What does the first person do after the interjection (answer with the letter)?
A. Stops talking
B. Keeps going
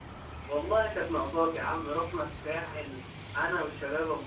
B